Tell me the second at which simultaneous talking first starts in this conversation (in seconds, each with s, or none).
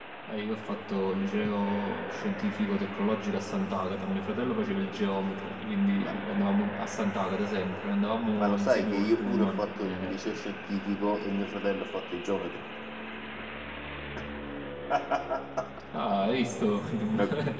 8.3 s